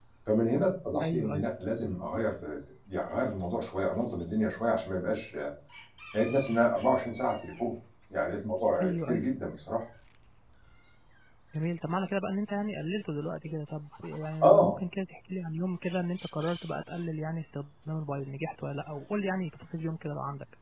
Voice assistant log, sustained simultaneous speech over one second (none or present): none